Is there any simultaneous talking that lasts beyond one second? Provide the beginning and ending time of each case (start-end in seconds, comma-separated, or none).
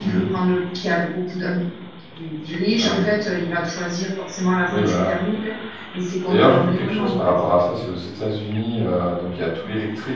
6.3-7.5